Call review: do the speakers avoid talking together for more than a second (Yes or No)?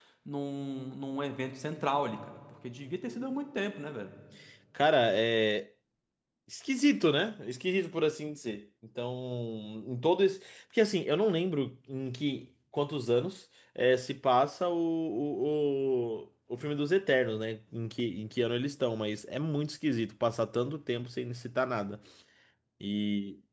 Yes